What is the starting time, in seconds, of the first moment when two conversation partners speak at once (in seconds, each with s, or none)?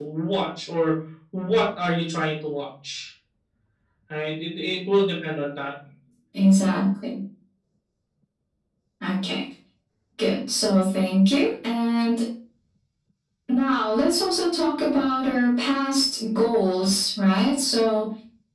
none